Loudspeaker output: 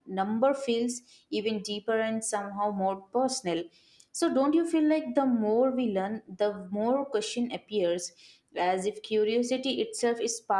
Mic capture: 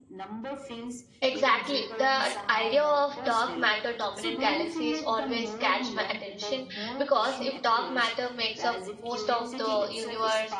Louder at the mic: user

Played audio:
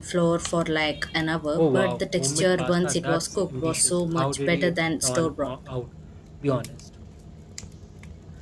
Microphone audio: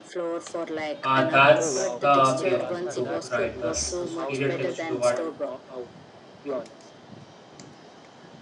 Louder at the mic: user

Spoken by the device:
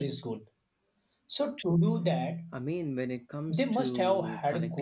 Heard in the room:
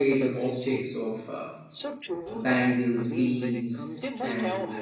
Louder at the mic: user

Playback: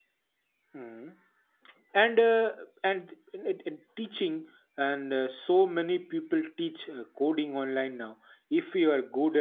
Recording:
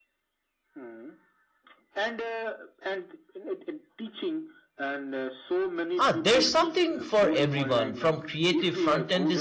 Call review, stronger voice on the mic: user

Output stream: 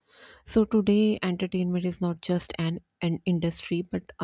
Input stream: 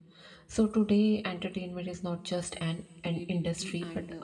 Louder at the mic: echo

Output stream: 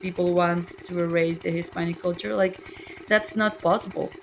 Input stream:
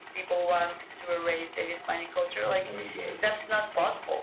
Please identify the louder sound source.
echo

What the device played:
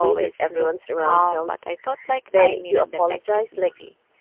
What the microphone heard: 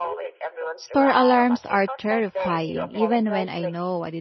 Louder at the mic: user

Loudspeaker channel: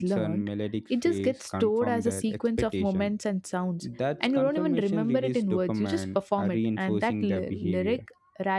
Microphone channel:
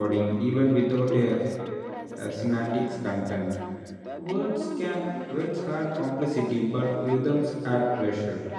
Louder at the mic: user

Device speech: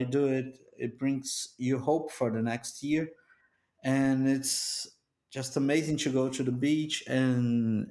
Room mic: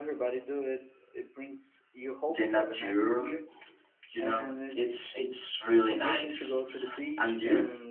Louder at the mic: user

